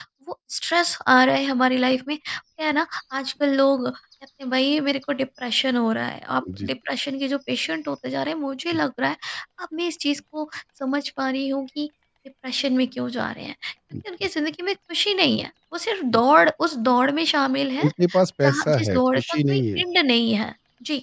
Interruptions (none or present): present